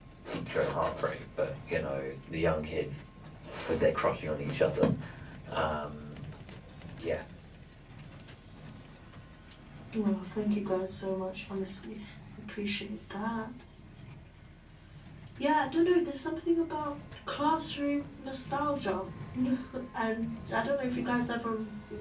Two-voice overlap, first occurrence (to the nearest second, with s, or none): none